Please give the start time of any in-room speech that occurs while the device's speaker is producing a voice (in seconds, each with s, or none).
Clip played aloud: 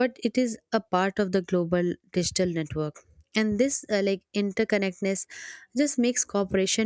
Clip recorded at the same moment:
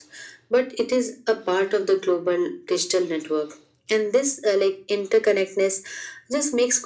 none